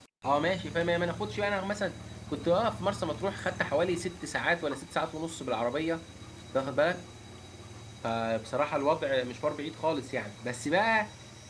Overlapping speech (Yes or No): No